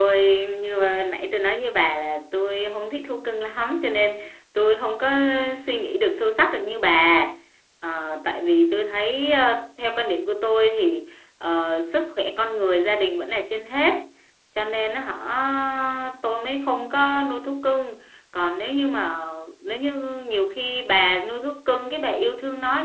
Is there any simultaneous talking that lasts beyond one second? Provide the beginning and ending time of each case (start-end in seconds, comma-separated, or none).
none